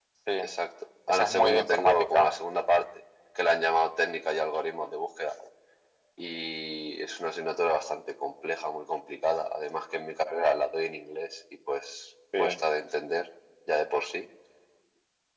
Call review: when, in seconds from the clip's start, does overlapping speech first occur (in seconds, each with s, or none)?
1.1 s